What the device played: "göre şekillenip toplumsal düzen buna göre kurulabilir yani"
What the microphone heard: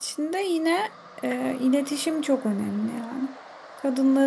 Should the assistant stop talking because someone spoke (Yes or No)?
Yes